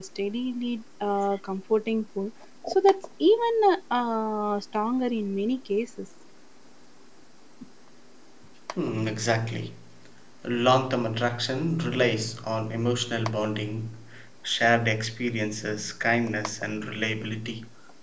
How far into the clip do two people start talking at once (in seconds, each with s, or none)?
none